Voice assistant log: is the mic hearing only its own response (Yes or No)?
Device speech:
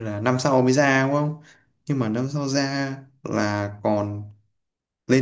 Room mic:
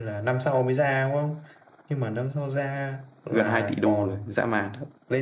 No